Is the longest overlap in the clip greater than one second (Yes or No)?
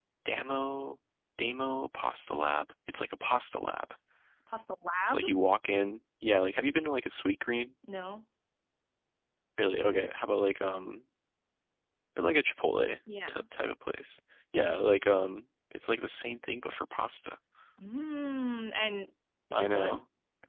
No